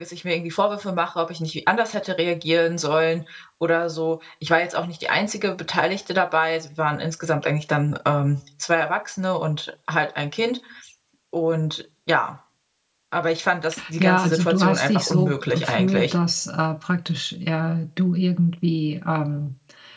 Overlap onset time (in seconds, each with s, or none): 14.0 s